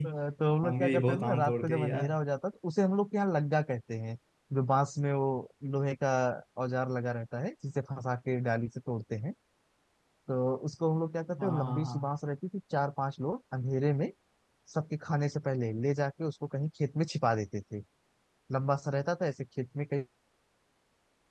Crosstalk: present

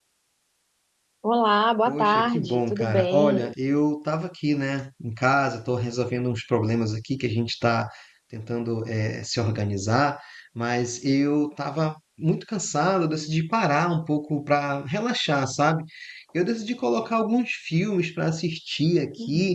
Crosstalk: present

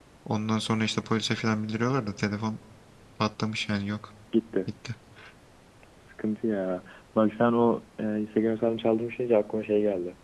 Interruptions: none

